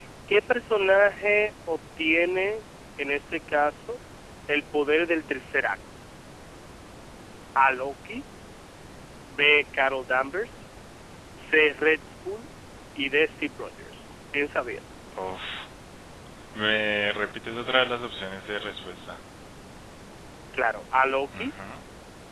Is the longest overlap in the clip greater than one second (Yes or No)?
No